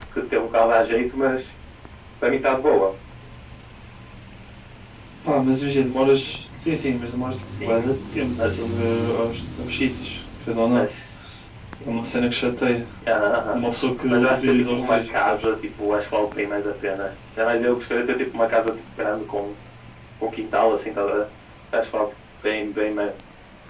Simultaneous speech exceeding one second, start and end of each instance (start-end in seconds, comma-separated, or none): 14.1-15.4